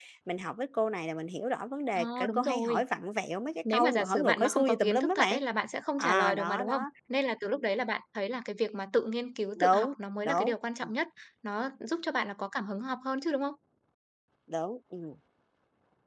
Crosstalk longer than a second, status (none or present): present